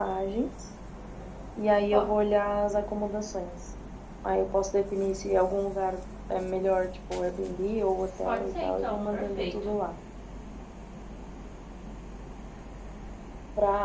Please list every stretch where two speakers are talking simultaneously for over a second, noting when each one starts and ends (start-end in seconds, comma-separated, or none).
8.2-9.7